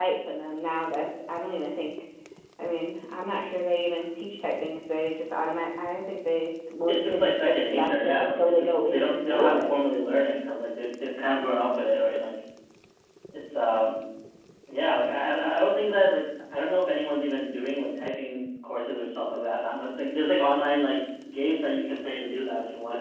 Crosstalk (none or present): present